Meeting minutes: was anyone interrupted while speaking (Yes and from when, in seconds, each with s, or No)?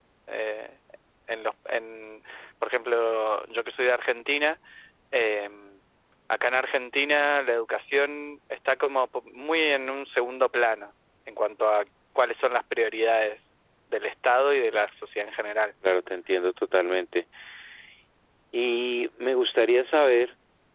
No